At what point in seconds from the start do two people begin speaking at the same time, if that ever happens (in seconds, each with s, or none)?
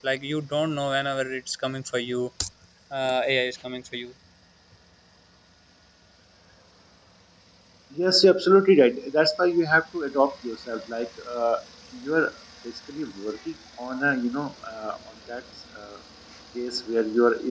none